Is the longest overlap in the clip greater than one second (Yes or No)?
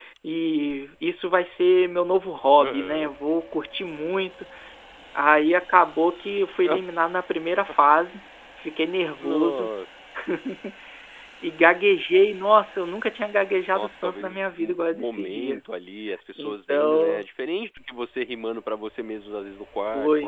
Yes